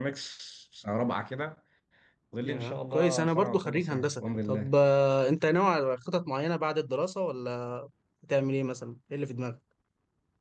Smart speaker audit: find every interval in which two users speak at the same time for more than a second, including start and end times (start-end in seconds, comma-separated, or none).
2.4-4.7